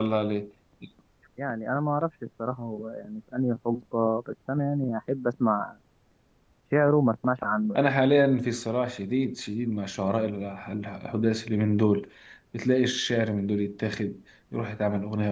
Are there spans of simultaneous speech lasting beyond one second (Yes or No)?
No